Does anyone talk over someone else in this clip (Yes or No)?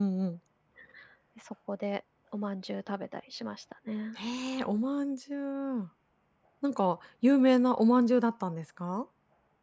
No